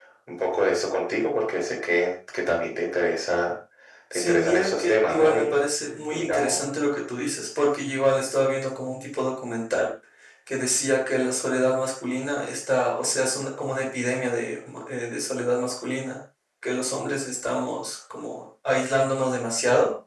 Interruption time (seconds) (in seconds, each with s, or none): 4.1 s